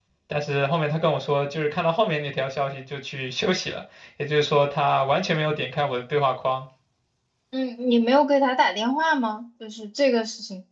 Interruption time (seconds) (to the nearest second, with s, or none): none